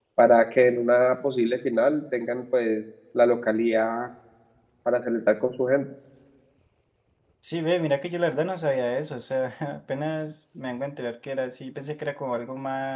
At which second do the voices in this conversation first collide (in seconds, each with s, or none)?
none